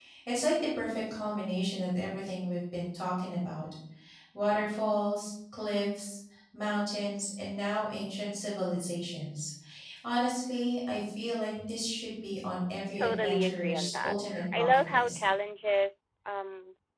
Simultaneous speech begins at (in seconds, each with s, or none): 12.9 s